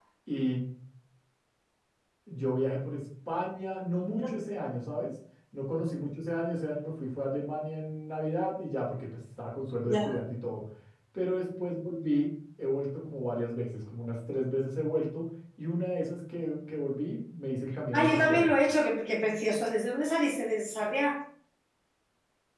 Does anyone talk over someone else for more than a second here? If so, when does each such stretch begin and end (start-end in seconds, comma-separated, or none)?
none